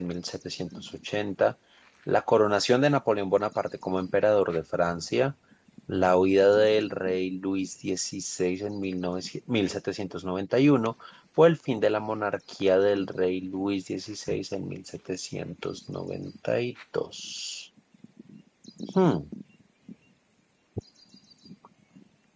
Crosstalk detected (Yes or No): No